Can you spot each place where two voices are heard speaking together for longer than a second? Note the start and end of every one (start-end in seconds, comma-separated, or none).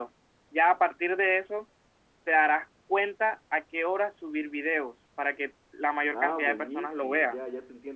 6.1-7.4